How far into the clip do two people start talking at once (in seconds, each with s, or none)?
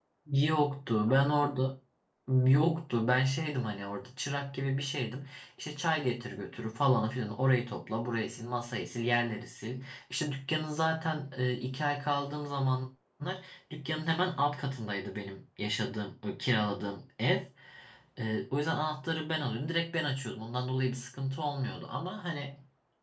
none